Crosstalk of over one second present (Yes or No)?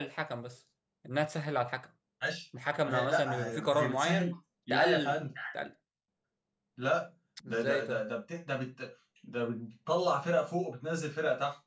Yes